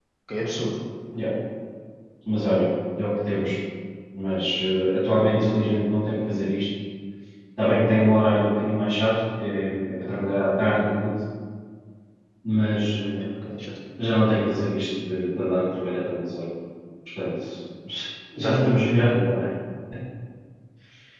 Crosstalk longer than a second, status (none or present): none